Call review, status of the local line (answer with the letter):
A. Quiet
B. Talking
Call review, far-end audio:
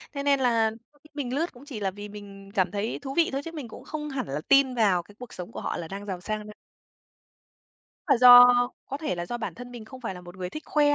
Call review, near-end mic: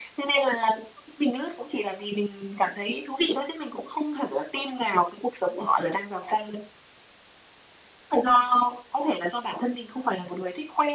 A